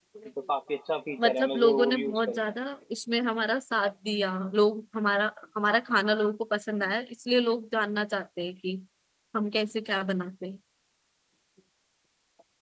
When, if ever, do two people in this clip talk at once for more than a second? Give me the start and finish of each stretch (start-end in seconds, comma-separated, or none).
1.2-2.5